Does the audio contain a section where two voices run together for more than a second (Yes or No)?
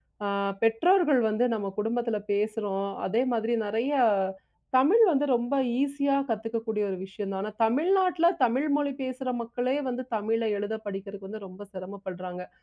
No